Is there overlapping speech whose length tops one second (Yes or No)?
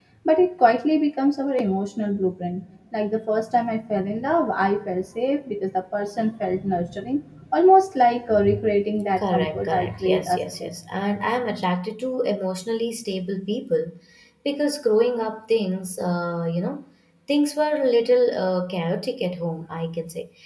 Yes